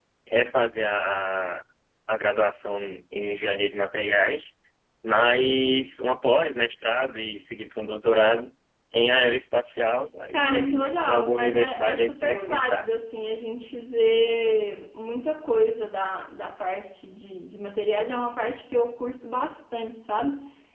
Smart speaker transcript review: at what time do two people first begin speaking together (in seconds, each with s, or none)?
10.3 s